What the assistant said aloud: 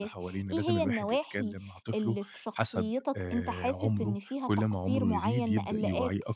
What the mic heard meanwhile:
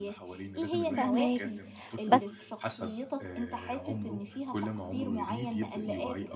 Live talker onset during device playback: 1.0 s

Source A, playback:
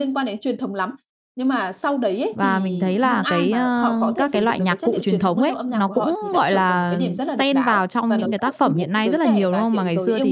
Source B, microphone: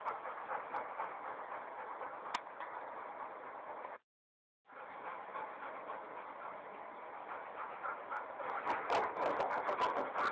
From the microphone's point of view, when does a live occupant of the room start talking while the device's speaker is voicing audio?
none

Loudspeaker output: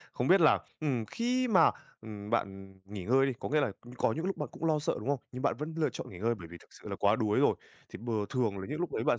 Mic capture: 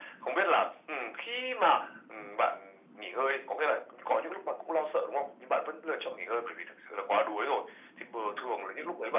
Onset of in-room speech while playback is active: none

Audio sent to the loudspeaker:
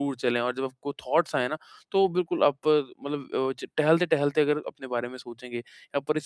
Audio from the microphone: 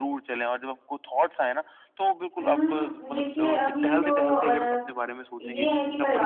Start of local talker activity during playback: 2.4 s

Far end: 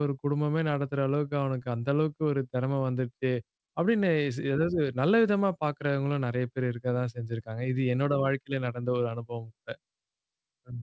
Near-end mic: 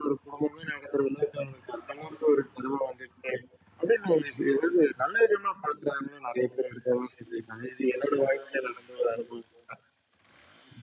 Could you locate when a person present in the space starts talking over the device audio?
none

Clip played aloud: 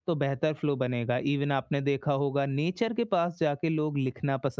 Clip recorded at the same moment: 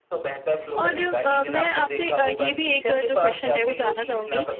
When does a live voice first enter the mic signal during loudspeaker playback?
0.8 s

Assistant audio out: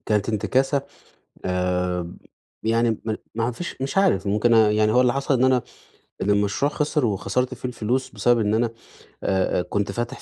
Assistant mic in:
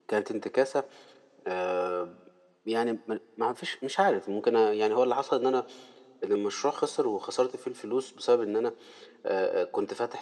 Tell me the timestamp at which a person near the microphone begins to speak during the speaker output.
none

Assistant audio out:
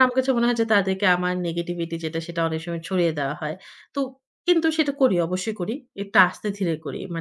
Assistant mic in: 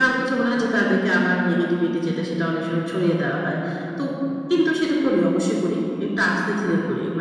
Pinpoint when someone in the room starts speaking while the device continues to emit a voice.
none

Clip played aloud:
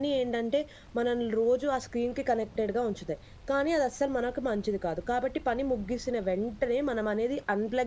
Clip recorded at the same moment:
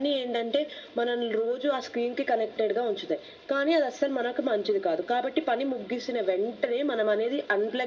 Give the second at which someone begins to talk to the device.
none

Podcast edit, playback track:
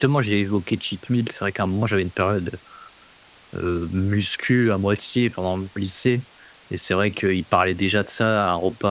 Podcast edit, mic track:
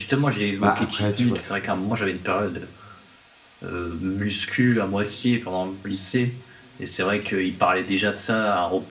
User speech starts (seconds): 0.6 s

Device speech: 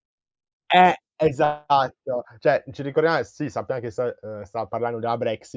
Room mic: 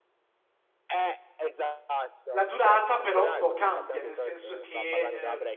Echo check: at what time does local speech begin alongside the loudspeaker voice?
2.3 s

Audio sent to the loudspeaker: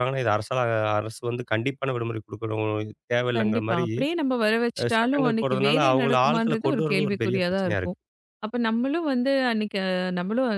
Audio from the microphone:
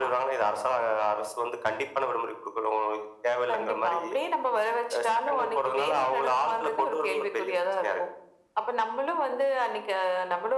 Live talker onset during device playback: none

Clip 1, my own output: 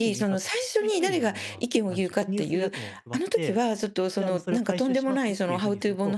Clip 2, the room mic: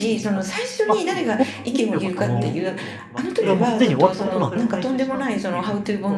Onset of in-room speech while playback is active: 0.9 s

